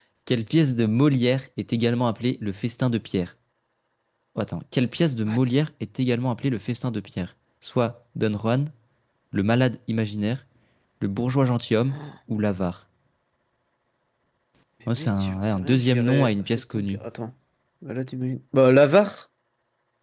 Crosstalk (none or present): present